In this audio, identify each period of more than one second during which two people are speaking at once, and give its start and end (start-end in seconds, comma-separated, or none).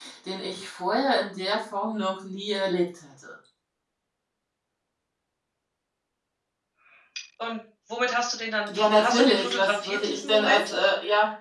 8.8-10.7